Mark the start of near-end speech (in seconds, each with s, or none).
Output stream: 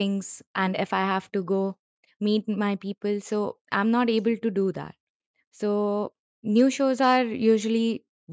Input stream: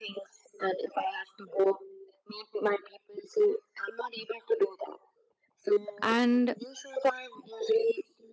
6.0 s